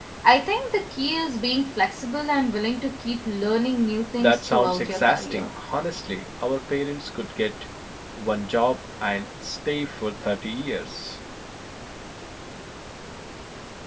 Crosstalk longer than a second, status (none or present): present